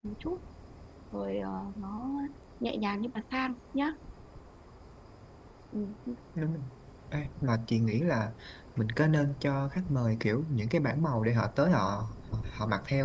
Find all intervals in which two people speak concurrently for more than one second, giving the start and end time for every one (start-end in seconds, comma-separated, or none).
none